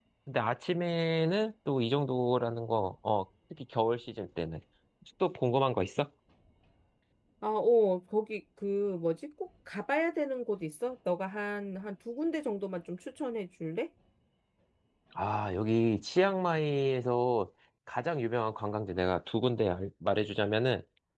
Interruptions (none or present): none